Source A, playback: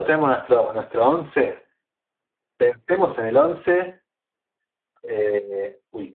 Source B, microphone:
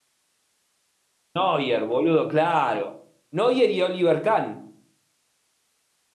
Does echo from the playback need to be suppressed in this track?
No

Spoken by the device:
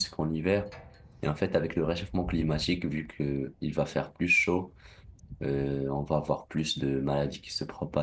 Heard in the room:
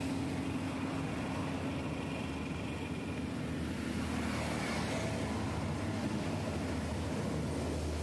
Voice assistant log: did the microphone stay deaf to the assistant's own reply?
Yes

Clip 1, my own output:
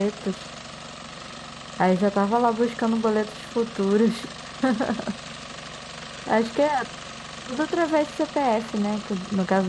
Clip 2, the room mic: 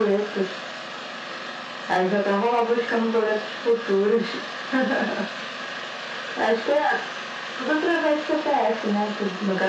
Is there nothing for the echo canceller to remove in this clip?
No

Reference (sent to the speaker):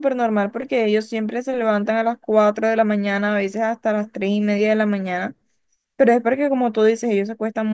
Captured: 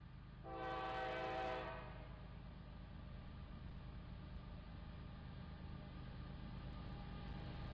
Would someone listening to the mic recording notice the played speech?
No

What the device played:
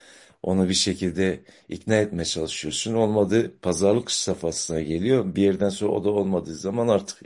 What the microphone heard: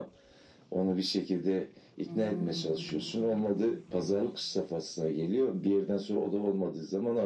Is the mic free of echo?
No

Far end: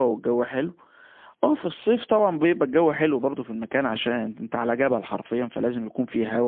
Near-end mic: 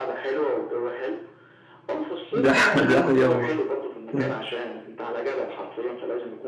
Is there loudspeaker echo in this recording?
Yes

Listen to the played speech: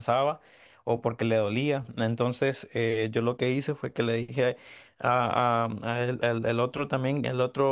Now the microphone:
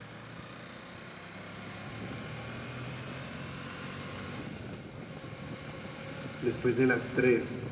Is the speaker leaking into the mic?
No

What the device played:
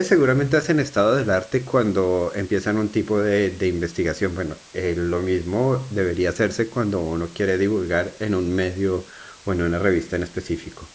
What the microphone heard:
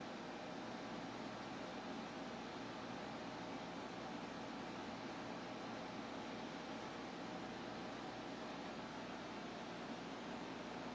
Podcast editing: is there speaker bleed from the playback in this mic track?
No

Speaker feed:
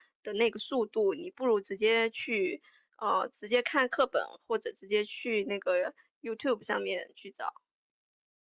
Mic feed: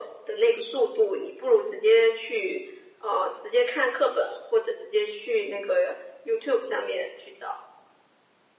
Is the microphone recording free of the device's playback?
No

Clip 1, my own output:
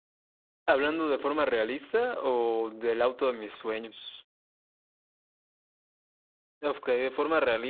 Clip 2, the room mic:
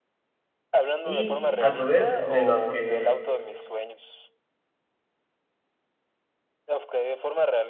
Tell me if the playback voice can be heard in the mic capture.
Yes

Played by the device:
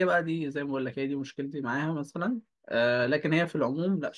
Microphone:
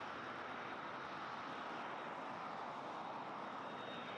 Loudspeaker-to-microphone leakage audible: No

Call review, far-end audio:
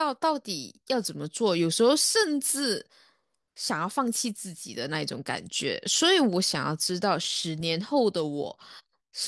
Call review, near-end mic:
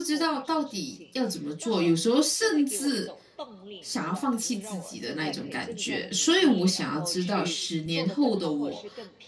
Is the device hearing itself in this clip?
Yes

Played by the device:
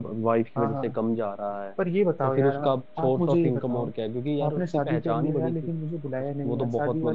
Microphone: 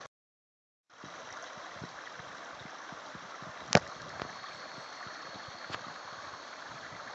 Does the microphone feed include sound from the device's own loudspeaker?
No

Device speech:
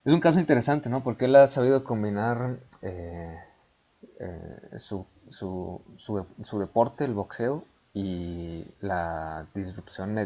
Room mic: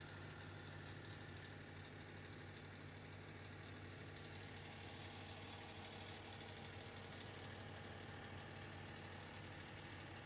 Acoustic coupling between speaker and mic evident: No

